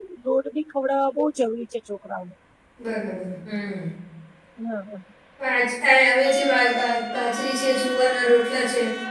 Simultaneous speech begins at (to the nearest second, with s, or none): none